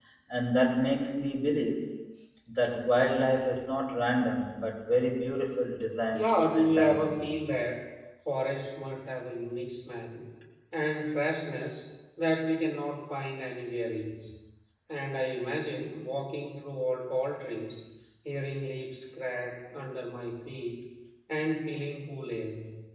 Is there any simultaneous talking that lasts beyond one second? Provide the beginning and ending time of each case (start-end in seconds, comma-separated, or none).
6.1-7.3